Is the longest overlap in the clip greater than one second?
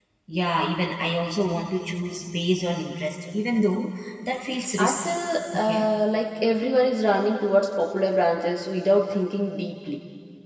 No

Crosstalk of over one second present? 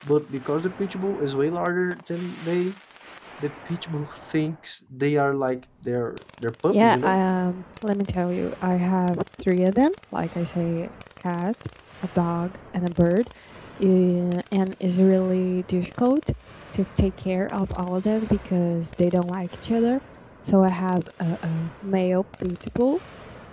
No

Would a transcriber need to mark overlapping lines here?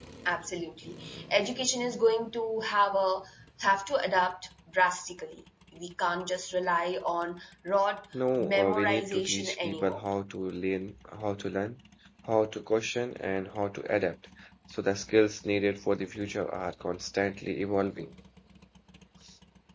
Yes, from 8.4 s

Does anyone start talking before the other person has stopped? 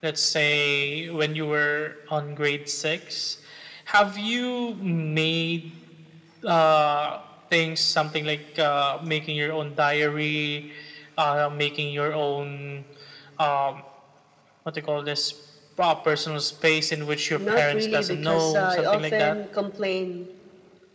Yes, from 17.3 s

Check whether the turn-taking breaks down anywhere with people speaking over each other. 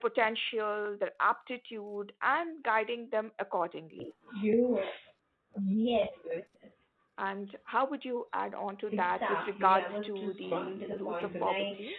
Yes, from 8.9 s

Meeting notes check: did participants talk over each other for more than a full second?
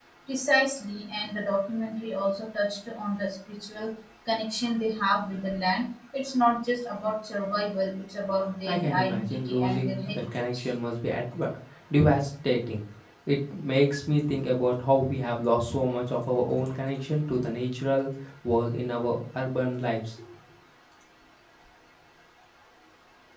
Yes, from 8.7 s

